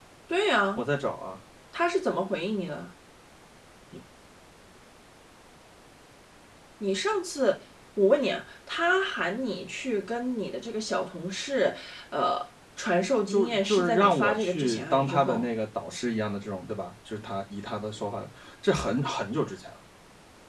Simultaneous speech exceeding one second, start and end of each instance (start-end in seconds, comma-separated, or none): 13.3-15.5